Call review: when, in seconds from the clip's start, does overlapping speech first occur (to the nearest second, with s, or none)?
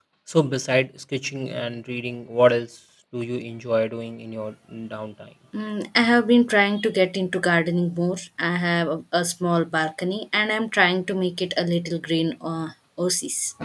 none